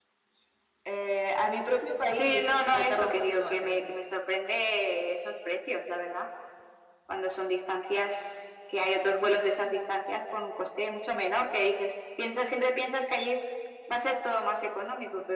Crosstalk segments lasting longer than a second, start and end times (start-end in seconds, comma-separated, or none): 2.2-3.8